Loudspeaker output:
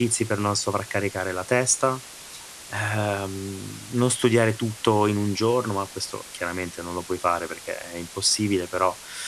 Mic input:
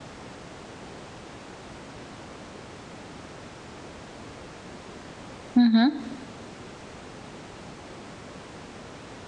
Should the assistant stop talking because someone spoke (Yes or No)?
Yes